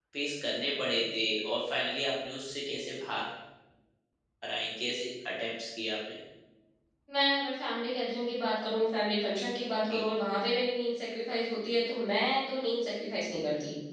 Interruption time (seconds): none

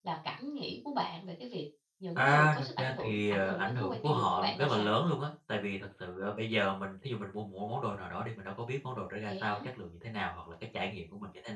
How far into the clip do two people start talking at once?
2.2 s

